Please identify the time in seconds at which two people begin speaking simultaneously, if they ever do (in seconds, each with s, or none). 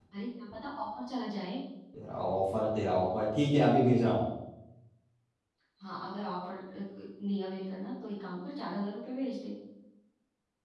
none